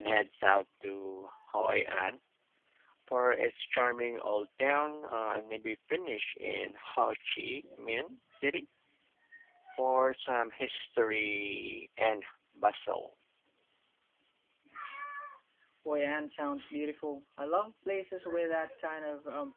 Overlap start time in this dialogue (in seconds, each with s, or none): none